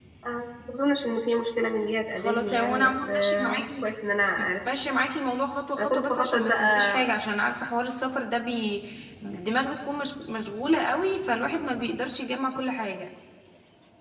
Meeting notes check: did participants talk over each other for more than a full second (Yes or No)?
Yes